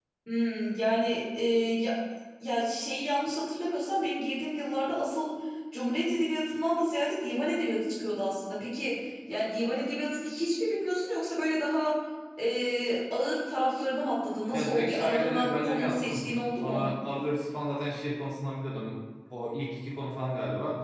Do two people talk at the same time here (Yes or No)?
Yes